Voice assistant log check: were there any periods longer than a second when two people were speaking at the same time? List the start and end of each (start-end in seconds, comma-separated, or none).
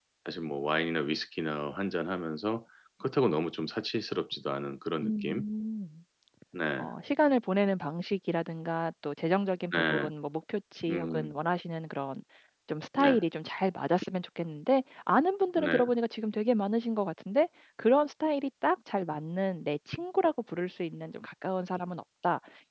none